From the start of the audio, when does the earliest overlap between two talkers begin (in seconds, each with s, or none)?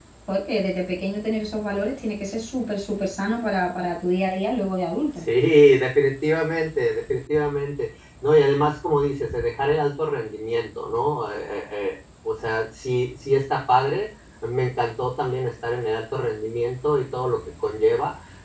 none